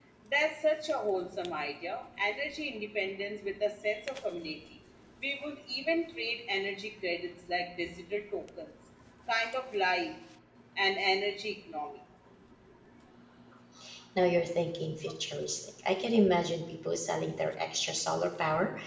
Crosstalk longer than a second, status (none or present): none